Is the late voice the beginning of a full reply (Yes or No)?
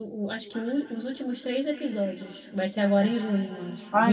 Yes